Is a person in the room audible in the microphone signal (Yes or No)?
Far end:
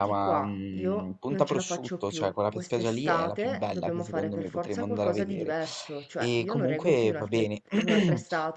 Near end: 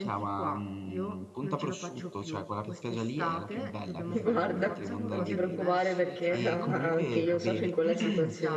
Yes